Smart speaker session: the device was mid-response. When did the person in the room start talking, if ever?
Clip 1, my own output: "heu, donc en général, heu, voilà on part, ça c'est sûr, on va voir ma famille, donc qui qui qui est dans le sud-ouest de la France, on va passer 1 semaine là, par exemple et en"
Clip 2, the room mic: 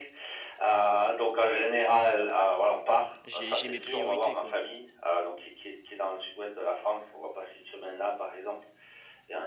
3.2 s

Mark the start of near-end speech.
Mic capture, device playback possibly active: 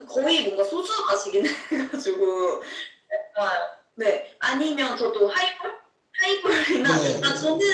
6.8 s

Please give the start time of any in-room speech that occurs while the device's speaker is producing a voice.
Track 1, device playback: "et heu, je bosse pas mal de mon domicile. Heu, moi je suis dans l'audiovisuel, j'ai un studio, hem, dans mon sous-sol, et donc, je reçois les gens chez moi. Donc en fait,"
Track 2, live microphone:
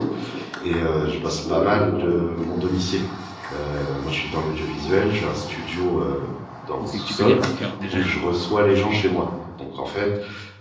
6.8 s

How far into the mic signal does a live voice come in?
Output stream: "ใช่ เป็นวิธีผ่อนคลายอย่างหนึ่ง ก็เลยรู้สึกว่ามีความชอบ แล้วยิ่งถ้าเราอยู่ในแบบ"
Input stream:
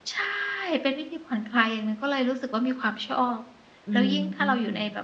3.9 s

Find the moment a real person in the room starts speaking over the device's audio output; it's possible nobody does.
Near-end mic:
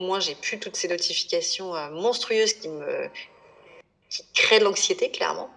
none

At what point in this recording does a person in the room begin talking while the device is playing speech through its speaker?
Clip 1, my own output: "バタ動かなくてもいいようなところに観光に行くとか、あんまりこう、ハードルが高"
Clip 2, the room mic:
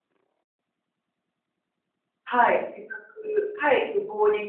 2.3 s

